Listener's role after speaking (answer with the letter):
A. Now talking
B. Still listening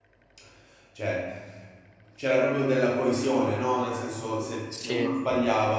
B